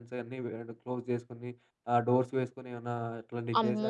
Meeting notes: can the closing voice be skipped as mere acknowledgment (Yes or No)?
No